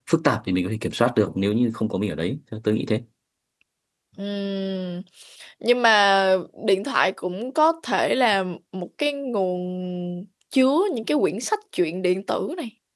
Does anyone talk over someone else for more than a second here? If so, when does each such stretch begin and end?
none

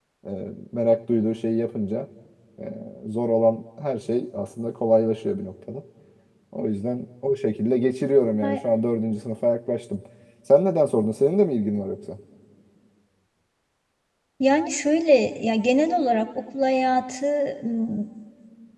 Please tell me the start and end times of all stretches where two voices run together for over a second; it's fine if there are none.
none

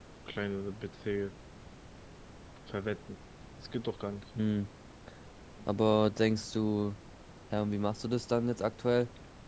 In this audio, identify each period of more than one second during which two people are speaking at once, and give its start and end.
none

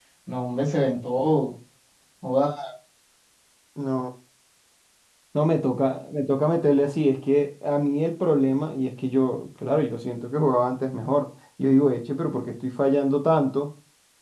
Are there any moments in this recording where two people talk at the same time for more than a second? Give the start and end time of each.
none

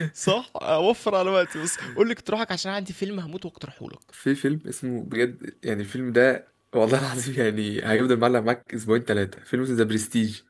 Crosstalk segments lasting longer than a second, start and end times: none

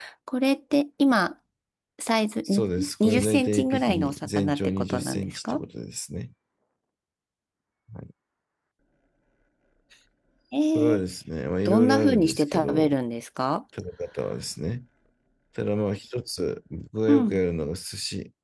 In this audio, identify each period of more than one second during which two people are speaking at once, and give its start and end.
2.4-5.6, 11.6-12.9

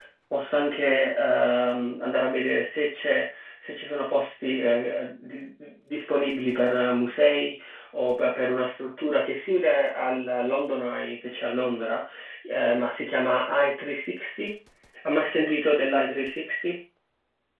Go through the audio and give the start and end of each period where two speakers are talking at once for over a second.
none

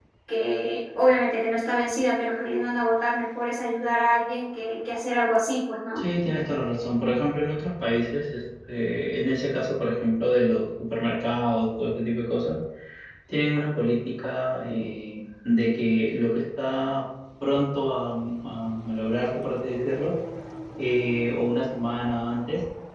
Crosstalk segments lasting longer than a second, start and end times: none

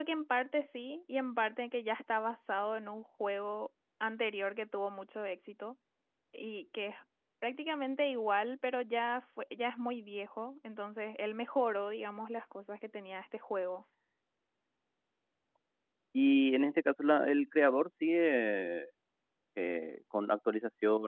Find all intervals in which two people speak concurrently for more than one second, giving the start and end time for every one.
none

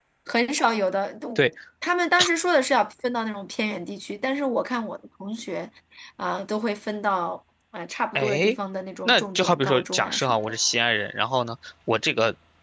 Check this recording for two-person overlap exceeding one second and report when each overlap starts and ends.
9.1-10.6

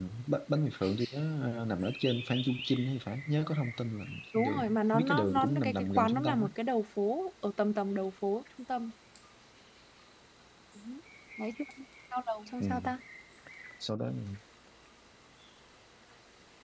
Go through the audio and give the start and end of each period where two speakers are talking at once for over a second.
4.3-6.5

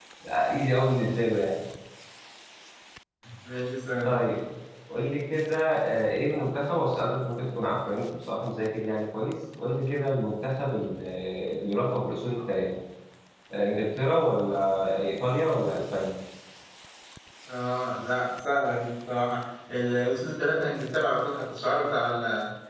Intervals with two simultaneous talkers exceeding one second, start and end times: none

